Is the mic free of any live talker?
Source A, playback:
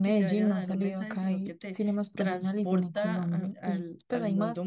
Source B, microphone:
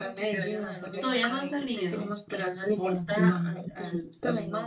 No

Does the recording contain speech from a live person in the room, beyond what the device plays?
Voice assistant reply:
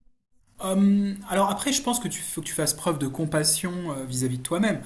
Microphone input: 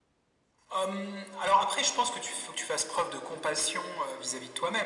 No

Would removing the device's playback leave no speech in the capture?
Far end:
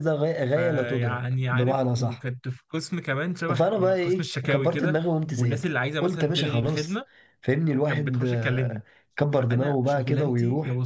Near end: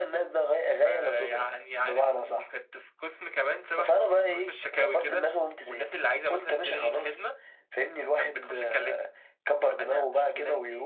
Yes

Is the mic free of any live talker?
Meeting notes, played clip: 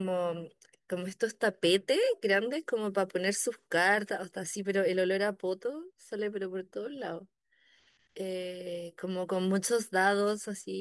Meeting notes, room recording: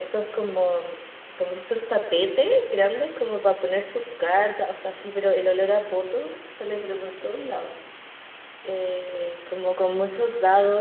Yes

